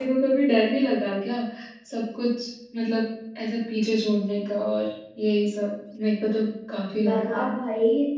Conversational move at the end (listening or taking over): taking over